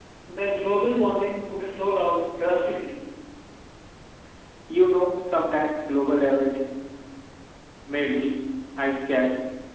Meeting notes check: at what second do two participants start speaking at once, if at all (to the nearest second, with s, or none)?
none